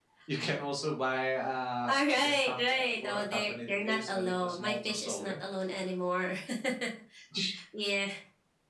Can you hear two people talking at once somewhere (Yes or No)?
Yes